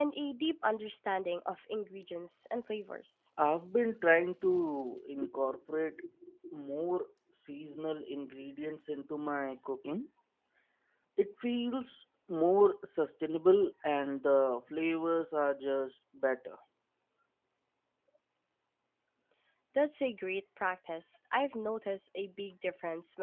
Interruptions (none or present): none